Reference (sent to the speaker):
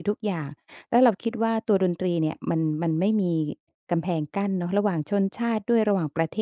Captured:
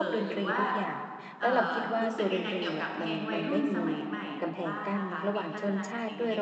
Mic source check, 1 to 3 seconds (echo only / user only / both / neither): both